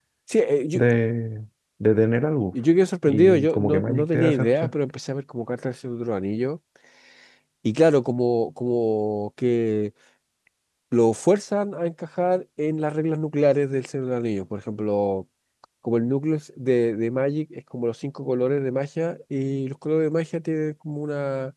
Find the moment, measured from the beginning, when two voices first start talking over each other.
3 s

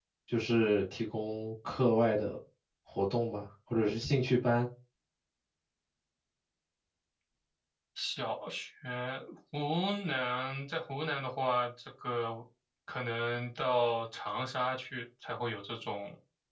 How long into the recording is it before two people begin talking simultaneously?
none

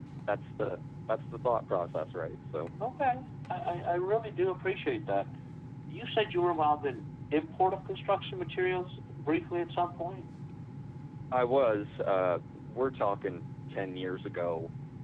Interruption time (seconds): none

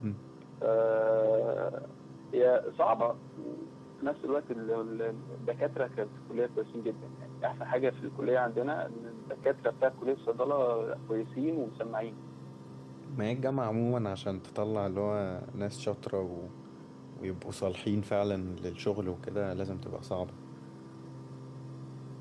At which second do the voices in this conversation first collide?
none

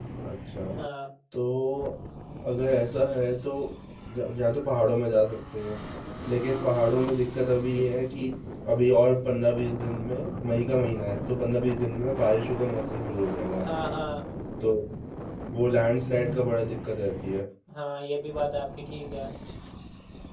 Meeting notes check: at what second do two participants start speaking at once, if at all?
none

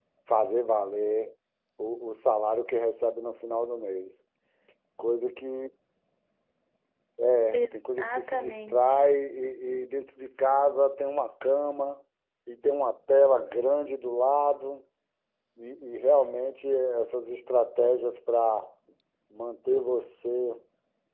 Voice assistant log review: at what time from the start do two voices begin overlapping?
8 s

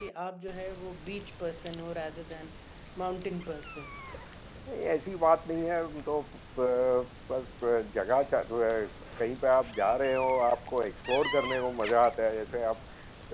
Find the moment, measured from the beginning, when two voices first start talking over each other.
none

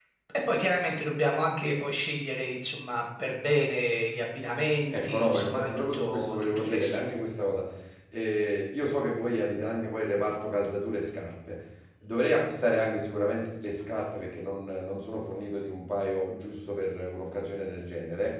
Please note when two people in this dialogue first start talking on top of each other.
5 s

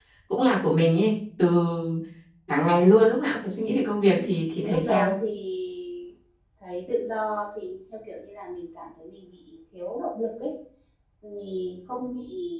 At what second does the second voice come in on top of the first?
3 s

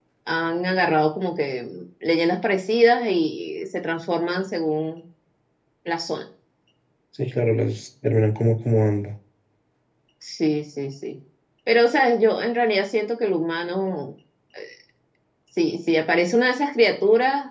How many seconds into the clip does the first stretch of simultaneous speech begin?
none

